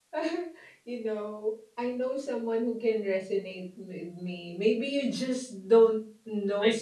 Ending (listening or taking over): listening